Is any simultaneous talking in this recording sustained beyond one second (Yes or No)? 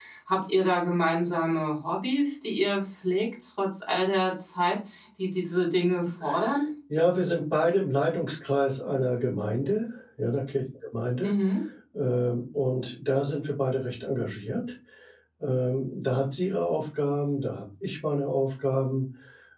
No